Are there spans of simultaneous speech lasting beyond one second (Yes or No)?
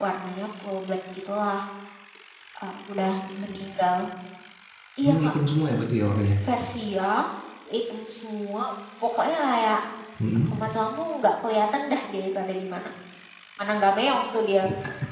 No